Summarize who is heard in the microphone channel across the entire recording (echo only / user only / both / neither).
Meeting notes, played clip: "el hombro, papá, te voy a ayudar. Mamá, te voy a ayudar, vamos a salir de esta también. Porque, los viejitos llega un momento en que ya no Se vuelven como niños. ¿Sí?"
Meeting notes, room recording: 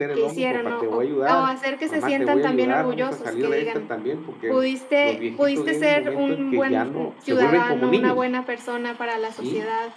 both